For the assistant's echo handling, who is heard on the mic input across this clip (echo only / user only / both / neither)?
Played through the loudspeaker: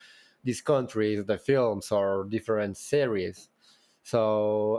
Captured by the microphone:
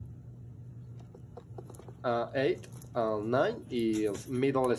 user only